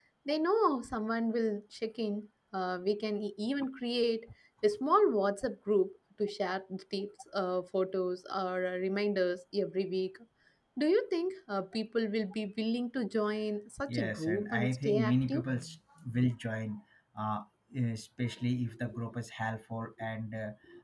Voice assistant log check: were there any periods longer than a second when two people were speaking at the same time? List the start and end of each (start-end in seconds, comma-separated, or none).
13.9-15.4